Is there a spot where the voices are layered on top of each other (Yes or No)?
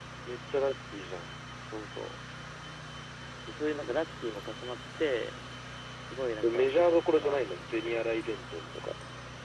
Yes